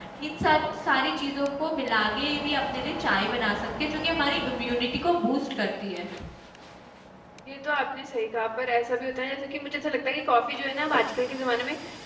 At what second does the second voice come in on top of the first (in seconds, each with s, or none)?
none